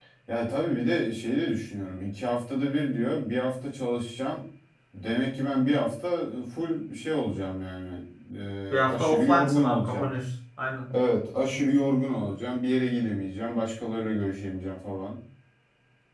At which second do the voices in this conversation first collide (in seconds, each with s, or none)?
8.7 s